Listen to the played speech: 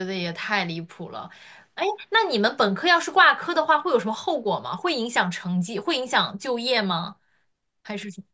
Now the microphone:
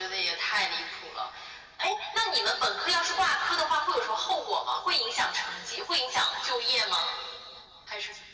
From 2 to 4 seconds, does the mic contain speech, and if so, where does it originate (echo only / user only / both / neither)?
echo only